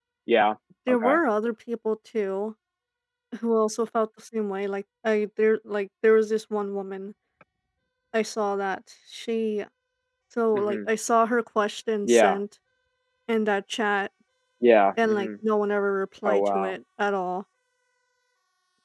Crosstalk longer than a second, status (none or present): none